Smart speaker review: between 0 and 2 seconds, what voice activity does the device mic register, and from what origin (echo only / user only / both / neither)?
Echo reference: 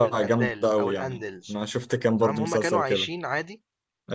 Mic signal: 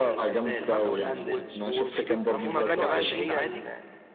both